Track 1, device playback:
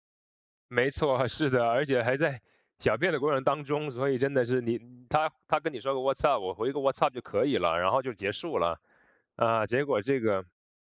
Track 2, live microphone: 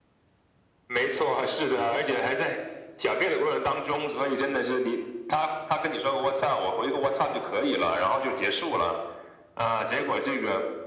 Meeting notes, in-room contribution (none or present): none